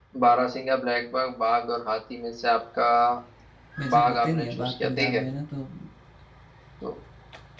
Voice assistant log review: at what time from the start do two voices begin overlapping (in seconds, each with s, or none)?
3.9 s